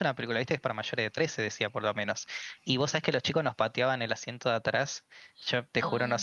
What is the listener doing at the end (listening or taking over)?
listening